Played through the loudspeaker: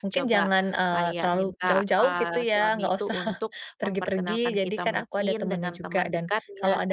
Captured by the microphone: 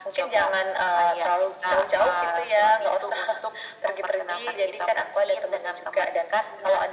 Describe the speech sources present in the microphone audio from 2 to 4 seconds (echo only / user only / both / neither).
echo only